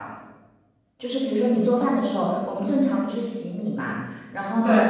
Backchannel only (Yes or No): Yes